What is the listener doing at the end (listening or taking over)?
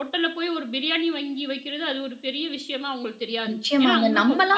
taking over